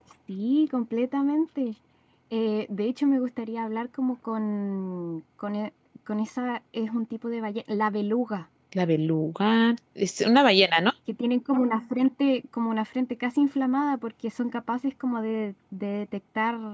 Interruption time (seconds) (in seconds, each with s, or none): none